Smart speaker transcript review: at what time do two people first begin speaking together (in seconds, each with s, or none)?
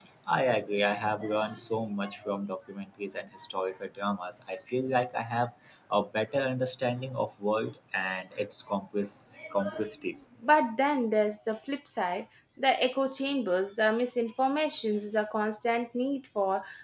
none